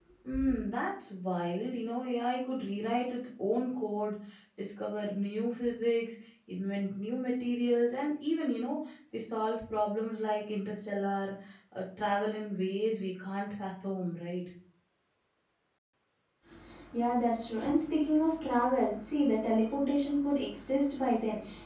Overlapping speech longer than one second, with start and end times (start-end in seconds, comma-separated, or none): none